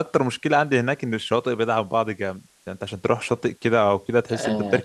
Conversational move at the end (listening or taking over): taking over